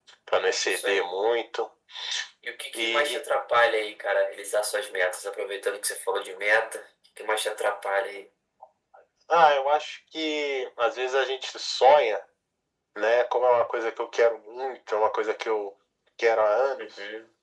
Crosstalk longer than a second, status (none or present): none